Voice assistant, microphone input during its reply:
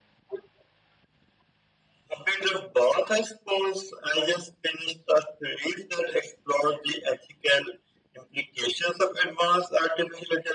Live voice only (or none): none